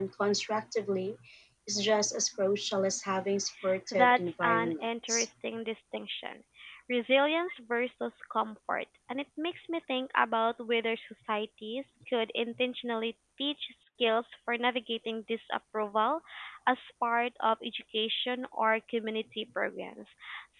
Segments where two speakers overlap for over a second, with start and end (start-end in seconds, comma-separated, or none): 3.9-5.3